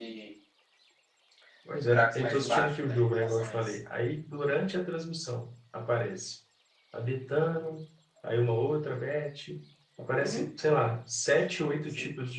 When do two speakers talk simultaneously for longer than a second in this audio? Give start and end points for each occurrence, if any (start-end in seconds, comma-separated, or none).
1.8-3.7